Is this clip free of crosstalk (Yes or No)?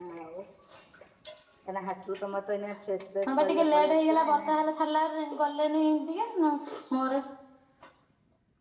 No